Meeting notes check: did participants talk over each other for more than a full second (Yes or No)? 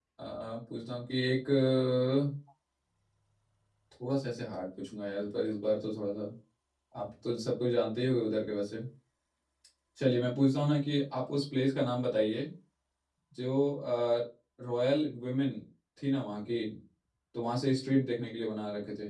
No